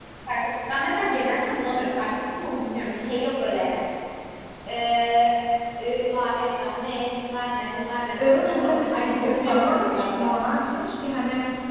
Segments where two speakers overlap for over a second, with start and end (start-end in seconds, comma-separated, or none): 8.2-10.3